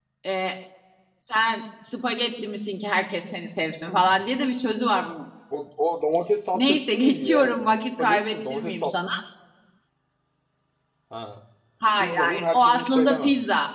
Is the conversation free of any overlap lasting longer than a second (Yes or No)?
No